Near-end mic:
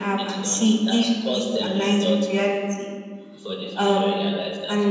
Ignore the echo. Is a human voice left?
No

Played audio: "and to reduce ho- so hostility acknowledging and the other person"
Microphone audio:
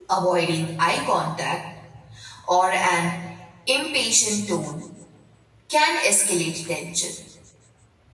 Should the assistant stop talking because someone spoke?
Yes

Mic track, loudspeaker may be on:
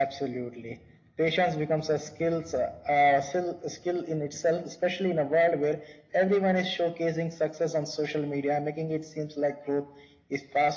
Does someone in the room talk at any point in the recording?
No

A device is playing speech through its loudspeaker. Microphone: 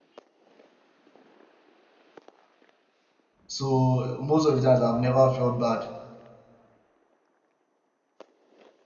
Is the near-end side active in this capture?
Yes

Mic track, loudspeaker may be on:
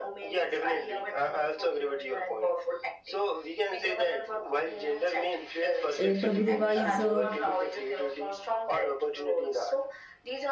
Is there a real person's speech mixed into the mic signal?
Yes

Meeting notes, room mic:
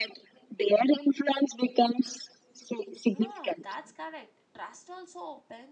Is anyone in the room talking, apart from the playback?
Yes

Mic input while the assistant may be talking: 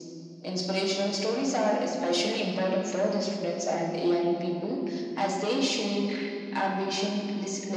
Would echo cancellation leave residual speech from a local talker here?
No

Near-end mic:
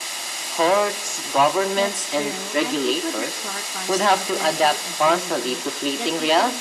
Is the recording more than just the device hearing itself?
Yes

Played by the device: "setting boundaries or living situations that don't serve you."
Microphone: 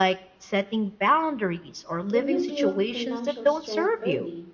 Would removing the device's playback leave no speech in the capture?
No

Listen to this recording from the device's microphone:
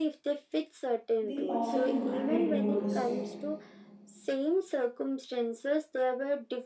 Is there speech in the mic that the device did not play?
Yes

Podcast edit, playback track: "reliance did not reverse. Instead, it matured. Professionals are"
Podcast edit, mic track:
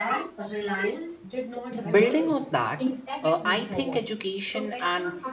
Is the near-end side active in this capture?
Yes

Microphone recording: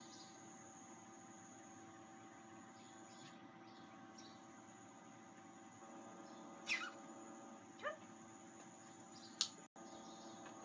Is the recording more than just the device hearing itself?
No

